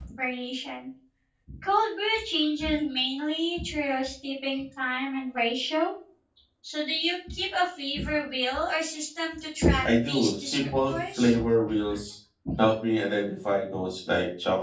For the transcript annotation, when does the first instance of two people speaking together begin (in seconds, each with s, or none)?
9.8 s